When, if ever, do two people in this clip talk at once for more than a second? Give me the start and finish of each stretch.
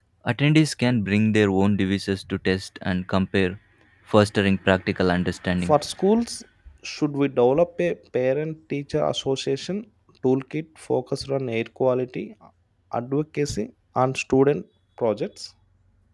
none

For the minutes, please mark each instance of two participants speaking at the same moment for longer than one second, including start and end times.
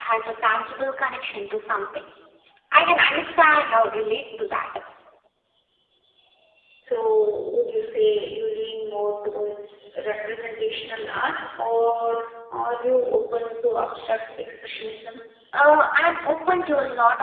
none

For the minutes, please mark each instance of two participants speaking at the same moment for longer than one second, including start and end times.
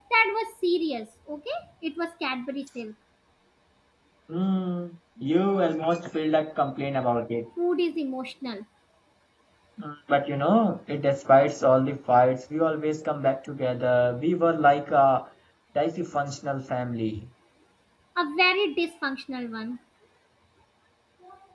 none

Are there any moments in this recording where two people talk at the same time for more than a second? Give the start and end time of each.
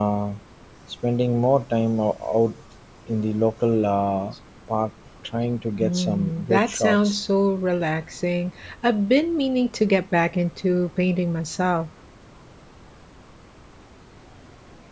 5.8-7.2

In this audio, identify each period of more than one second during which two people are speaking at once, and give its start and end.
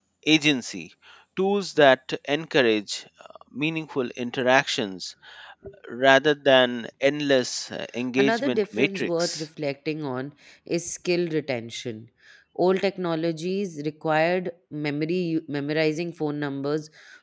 8.2-9.4

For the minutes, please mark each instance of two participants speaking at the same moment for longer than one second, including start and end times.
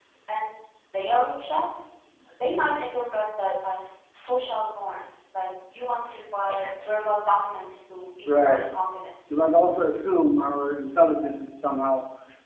none

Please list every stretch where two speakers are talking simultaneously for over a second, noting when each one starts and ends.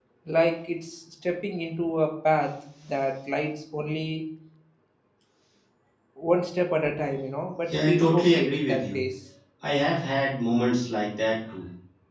7.7-9.0

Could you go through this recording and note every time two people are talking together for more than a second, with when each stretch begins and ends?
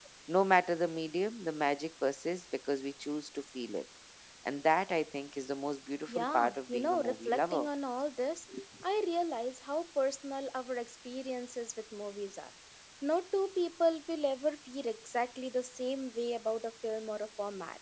6.1-7.7

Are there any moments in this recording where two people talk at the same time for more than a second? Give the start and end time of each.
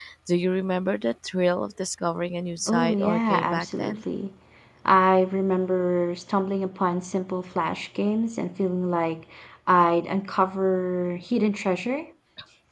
2.7-4.0

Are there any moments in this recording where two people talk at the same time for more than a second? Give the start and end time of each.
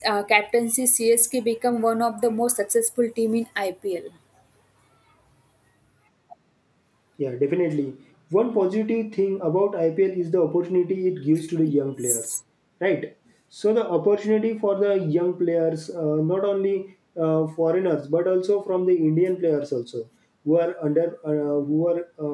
none

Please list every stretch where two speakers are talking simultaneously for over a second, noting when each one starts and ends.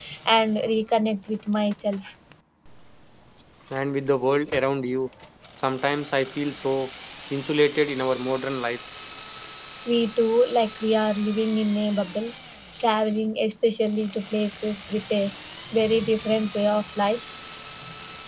none

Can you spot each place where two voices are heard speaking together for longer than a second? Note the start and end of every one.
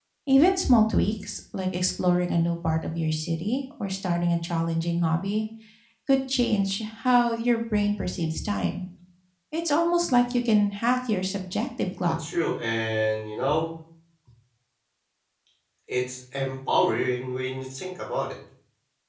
none

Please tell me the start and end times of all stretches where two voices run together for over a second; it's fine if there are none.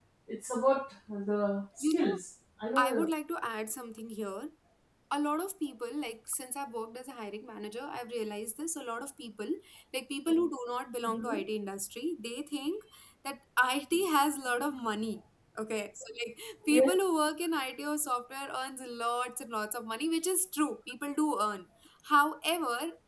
none

